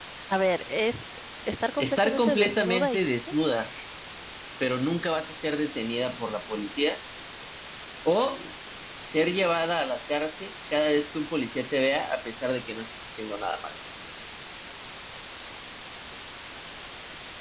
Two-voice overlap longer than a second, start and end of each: 1.8-3.4

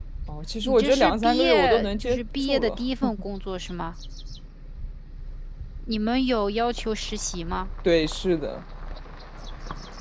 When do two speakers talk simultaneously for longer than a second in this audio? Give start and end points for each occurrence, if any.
0.6-2.8

